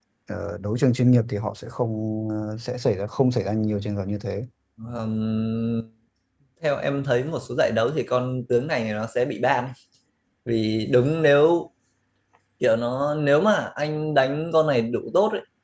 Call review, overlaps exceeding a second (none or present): none